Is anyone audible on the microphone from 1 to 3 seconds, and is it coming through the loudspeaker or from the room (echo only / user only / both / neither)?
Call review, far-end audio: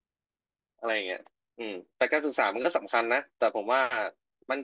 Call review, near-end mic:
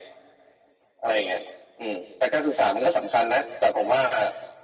echo only